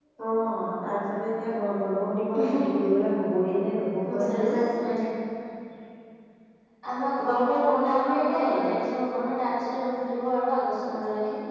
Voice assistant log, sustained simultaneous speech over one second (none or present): present